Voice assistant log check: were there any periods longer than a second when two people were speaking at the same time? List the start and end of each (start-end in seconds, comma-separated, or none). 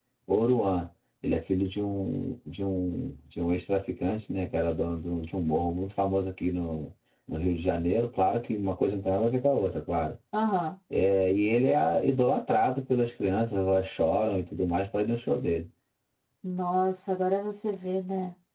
none